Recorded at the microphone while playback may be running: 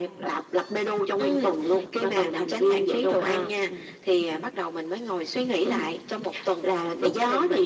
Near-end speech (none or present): none